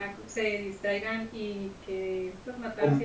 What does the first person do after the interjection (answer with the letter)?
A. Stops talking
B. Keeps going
B